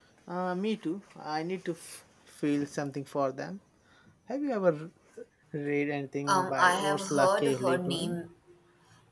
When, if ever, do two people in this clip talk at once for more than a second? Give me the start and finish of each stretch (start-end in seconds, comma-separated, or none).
6.3-8.2